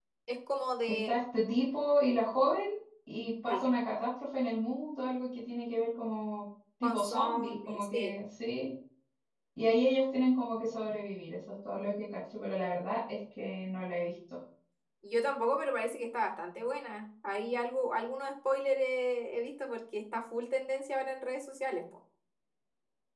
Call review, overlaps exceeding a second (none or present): present